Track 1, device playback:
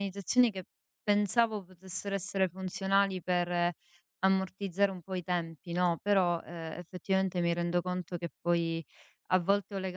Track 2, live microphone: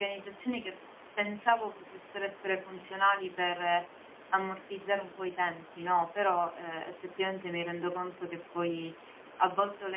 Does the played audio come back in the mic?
Yes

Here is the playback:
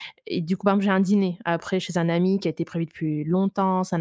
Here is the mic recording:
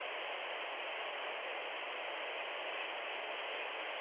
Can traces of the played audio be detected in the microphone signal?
No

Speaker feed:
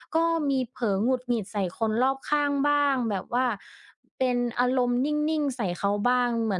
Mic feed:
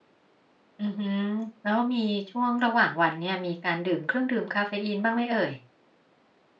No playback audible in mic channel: Yes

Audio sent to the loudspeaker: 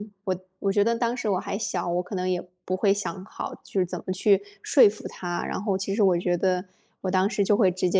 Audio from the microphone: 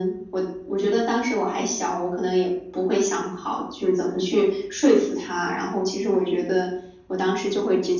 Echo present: Yes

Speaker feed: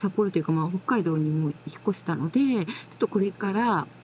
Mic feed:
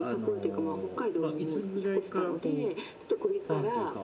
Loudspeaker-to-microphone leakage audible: Yes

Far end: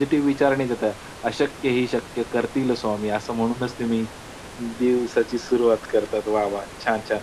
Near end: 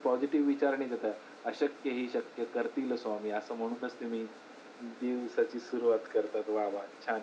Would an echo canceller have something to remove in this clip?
Yes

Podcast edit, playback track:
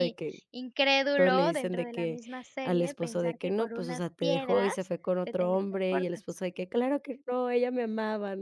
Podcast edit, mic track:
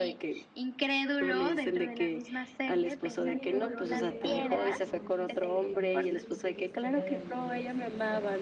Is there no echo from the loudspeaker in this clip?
No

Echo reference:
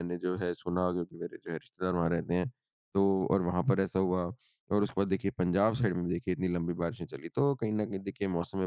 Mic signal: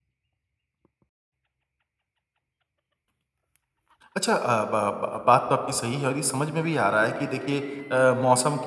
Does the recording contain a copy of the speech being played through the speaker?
No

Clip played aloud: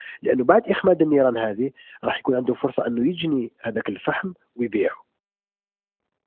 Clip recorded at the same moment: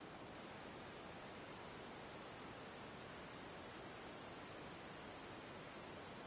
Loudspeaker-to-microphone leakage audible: No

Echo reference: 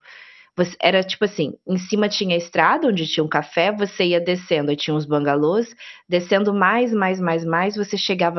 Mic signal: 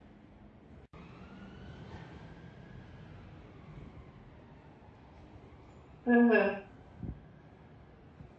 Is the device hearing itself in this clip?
No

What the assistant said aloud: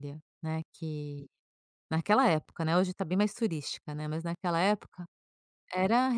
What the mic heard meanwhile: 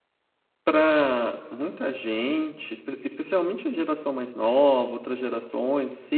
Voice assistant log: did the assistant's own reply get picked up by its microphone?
No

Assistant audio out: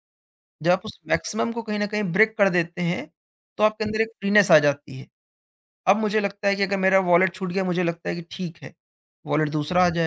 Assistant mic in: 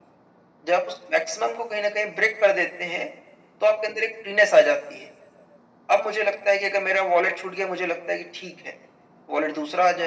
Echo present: Yes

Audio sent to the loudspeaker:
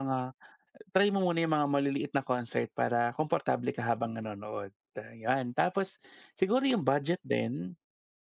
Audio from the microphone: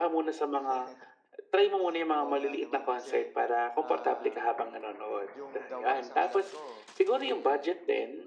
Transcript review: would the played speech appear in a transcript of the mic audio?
Yes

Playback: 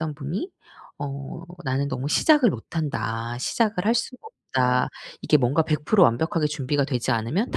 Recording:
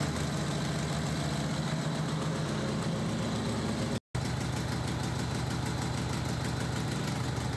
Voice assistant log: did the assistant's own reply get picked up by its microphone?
No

